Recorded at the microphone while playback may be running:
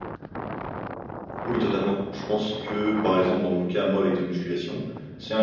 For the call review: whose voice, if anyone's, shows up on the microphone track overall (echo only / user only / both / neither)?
user only